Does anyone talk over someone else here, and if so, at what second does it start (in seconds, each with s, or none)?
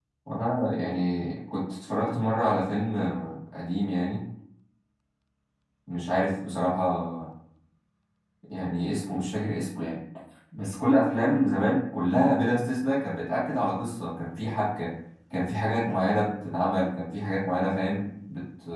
none